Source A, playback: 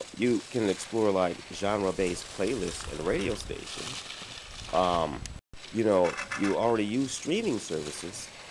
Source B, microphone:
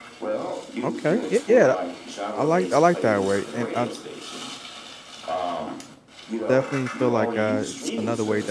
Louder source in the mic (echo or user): user